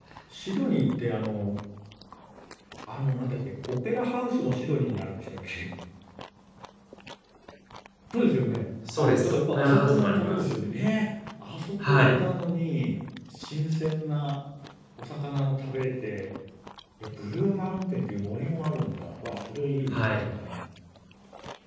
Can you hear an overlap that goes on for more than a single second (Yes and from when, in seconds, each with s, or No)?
Yes, from 8.9 s